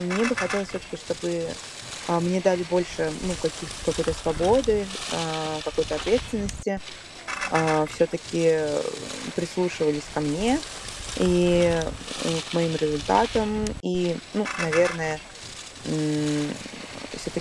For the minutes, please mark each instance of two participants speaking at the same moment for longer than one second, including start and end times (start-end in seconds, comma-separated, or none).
none